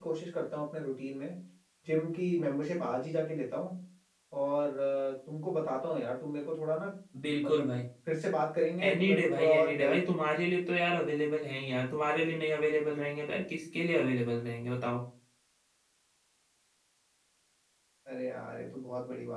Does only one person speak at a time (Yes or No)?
No